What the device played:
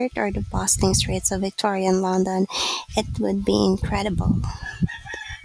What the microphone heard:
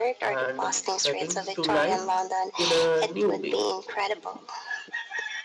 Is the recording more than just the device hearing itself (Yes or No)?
Yes